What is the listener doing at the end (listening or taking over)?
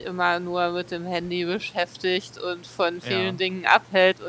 listening